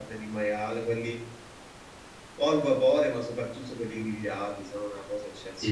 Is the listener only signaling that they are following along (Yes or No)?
No